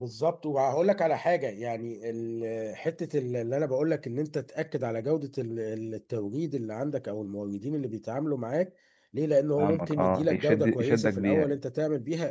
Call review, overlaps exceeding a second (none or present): present